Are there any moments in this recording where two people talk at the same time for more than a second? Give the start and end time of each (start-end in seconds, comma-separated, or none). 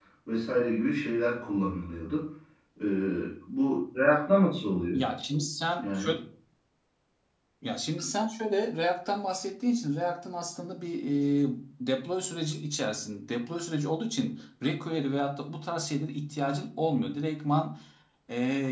none